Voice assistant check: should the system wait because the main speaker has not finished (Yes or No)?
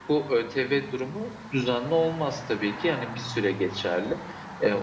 Yes